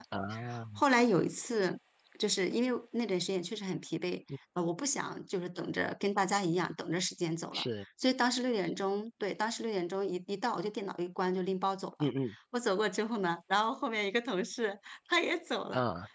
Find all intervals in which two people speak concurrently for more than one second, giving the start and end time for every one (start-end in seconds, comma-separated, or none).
none